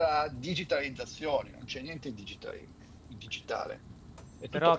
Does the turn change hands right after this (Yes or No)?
Yes